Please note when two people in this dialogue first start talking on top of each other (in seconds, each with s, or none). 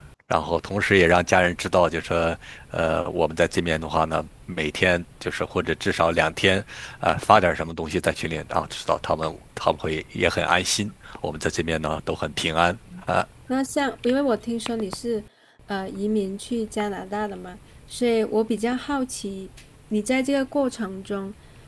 none